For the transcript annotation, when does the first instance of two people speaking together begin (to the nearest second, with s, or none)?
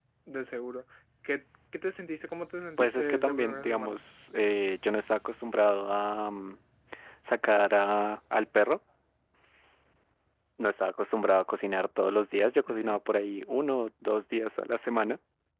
3 s